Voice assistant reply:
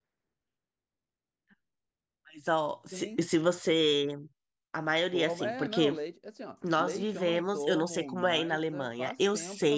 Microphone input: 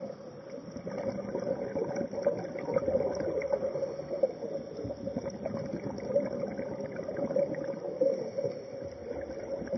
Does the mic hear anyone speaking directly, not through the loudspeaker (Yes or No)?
No